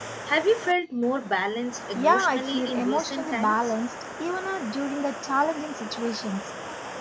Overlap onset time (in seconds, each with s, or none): 1.9 s